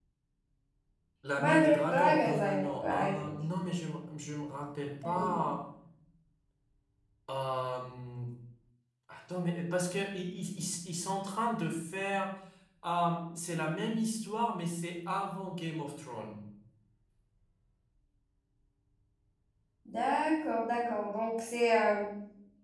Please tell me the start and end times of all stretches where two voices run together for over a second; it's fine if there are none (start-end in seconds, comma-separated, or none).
1.4-3.3